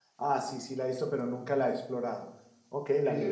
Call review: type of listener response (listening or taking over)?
taking over